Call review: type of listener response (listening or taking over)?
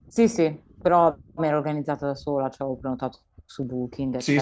taking over